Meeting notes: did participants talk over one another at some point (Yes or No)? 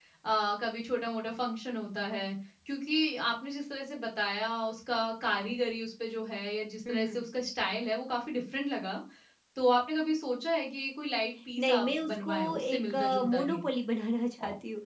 Yes